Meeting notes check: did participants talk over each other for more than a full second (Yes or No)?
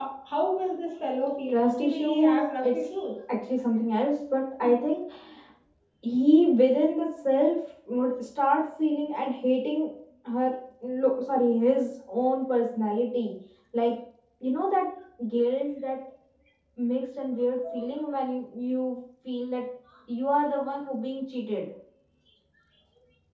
Yes